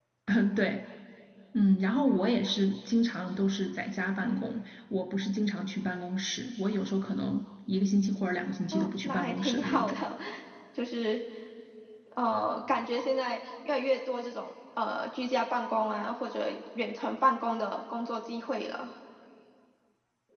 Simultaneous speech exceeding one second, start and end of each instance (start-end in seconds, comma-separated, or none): 8.7-10.0